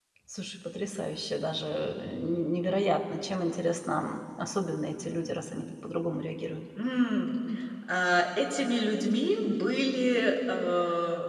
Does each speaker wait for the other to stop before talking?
Yes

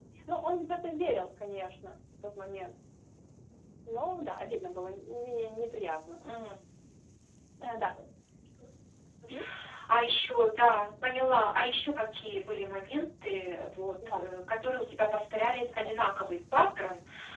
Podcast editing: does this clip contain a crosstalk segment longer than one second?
No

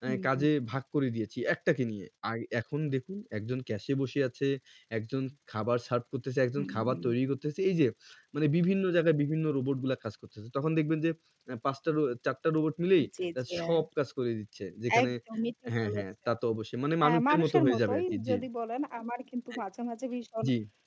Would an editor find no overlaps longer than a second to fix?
No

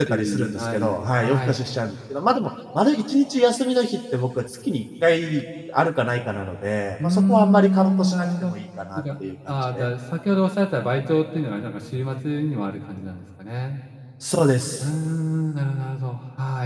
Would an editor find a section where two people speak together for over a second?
Yes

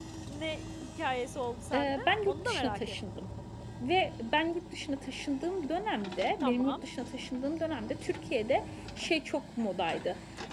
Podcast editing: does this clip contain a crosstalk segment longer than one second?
Yes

